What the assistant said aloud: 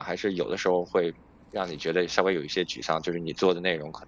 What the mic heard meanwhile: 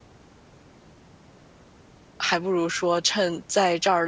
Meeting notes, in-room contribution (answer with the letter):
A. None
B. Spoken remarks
B